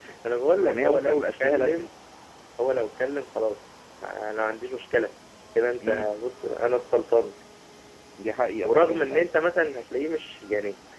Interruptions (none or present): present